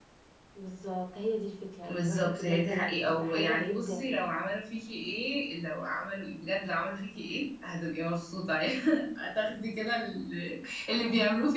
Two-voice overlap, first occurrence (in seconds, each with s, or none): 1.9 s